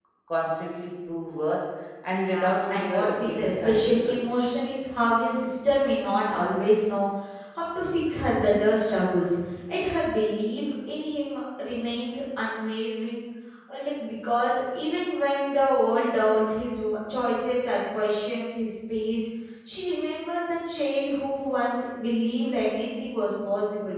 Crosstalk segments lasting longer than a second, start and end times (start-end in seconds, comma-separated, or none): 2.1-4.2